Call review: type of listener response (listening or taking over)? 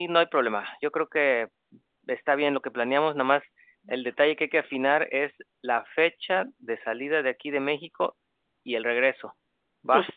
taking over